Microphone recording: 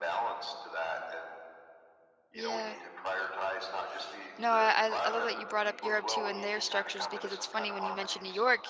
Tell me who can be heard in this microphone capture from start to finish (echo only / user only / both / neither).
both